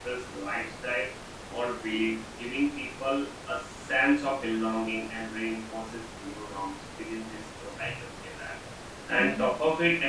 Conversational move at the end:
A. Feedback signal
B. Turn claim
A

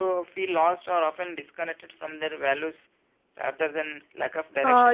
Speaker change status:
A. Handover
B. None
A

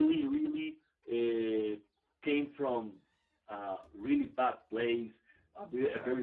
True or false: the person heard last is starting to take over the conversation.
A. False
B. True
A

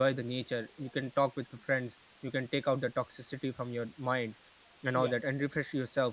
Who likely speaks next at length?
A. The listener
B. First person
B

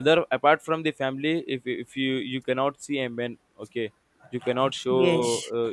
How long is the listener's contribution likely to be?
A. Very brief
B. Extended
B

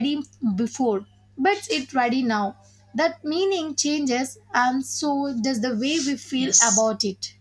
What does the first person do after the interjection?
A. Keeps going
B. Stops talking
B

